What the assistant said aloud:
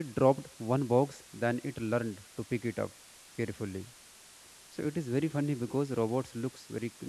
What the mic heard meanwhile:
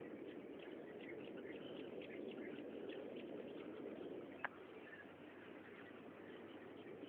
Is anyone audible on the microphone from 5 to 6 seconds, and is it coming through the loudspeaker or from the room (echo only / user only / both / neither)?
neither